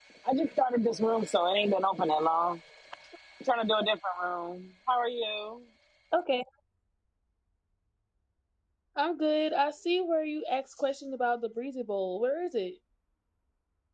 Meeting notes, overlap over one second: none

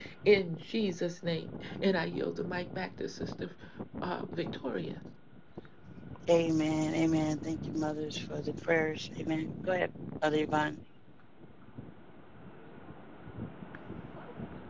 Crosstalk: none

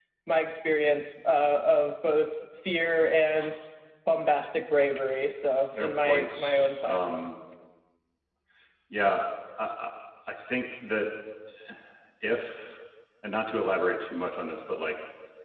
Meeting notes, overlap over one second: present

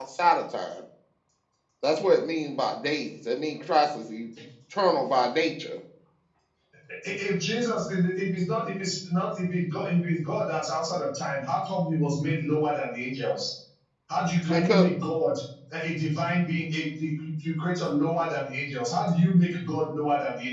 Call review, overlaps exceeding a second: none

